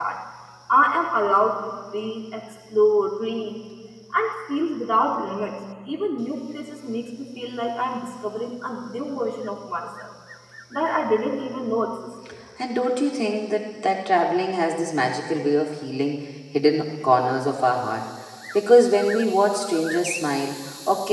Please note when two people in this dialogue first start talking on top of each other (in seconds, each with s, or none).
none